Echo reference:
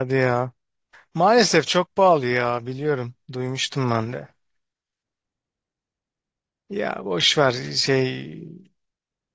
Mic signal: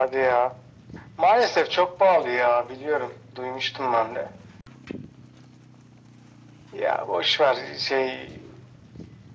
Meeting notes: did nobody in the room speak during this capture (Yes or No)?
Yes